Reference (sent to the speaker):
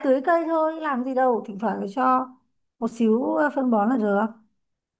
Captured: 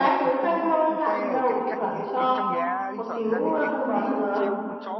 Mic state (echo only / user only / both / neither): both